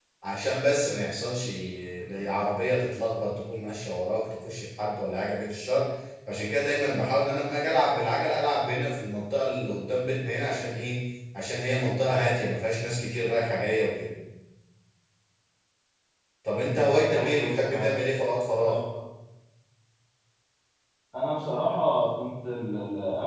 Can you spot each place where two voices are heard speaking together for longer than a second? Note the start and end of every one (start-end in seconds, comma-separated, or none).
16.5-17.9